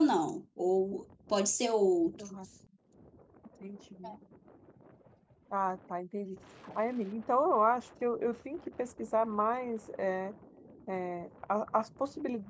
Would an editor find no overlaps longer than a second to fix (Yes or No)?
Yes